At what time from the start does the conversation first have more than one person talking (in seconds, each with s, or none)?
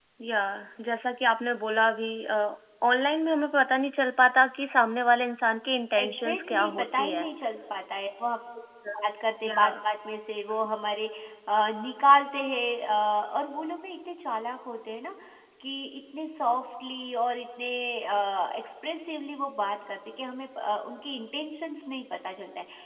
6.0 s